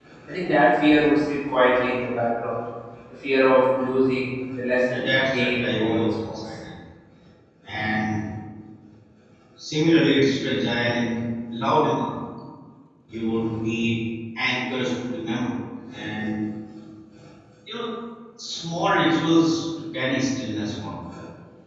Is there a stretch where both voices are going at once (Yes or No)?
Yes